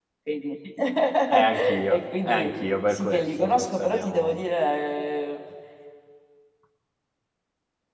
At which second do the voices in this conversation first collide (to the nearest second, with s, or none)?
1 s